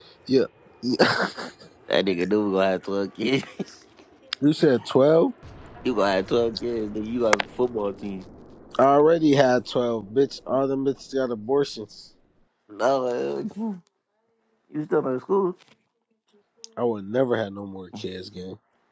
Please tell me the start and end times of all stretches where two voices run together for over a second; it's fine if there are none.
none

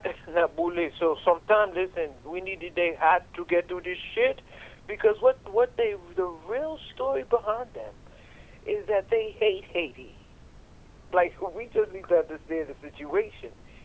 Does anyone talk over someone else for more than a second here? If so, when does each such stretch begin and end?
none

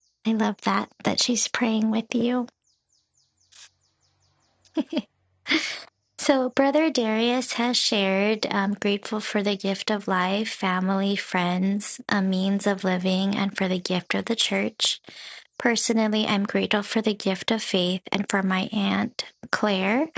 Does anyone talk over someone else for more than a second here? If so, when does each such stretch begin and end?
none

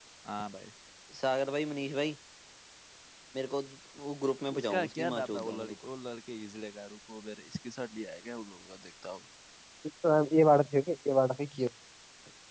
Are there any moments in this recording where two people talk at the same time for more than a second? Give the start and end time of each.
4.6-5.9

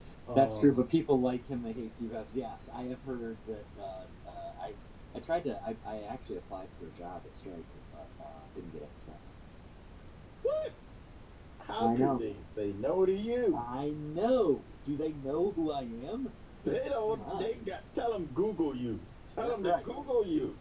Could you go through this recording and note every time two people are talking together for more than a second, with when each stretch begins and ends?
none

